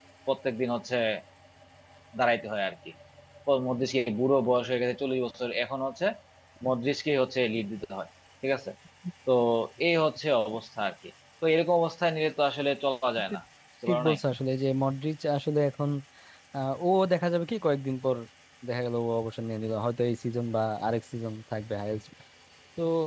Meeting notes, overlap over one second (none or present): none